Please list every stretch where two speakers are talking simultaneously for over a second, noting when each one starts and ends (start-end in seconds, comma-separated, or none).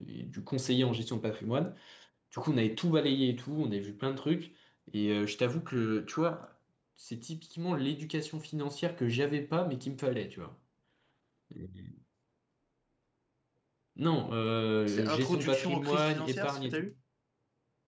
14.9-16.8